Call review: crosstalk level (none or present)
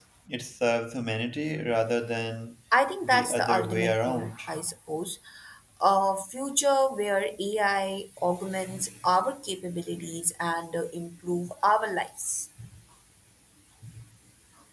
present